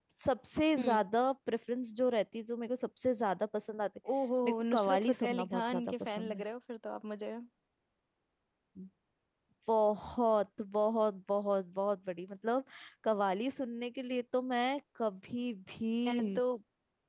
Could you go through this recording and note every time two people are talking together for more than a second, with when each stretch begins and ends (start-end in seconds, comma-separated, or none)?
4.4-6.4